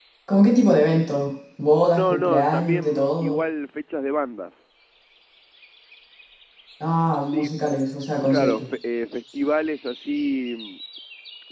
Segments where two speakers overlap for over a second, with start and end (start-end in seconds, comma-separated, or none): 1.9-3.4